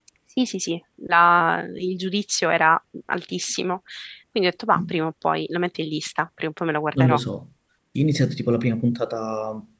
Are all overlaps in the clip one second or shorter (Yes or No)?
Yes